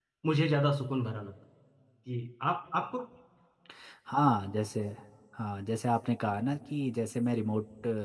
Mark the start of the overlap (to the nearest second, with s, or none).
none